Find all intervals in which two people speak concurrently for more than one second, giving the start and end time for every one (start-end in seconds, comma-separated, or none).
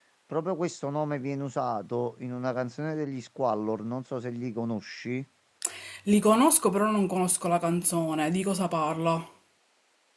none